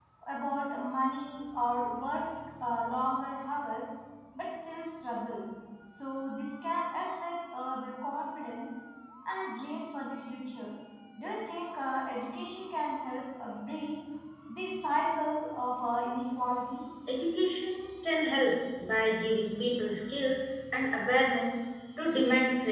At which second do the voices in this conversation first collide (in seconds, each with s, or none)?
none